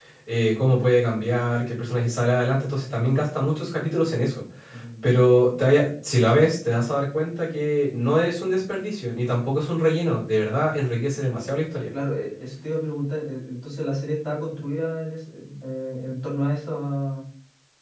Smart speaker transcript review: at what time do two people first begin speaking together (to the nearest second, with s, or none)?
none